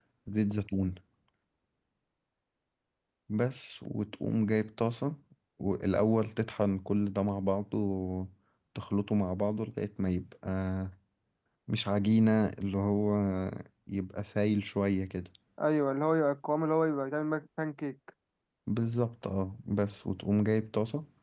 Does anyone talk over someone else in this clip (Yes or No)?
No